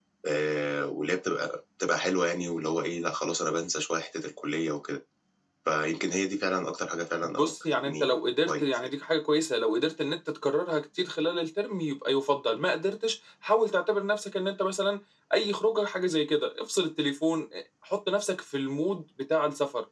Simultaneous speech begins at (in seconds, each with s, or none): 7.4 s